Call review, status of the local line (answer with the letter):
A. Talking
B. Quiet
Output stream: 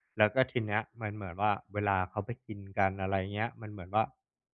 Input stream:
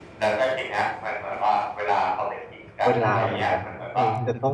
A